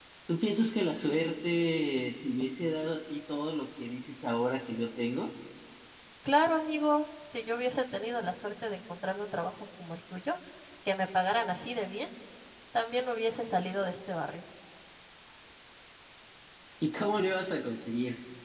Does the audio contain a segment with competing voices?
No

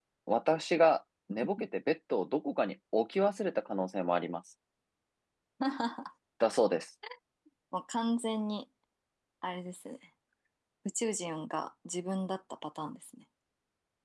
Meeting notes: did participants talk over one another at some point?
No

